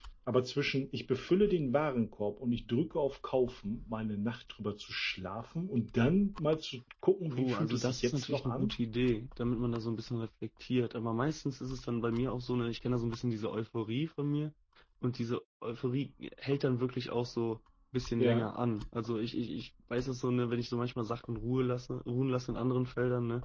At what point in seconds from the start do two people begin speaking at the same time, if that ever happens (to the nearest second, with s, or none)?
7 s